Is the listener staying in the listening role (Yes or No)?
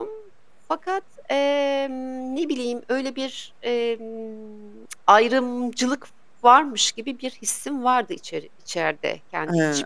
No